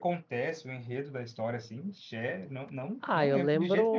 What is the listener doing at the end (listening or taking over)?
taking over